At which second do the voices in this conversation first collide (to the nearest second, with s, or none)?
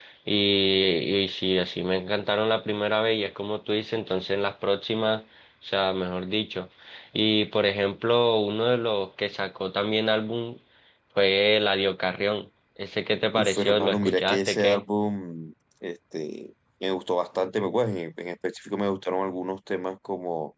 13 s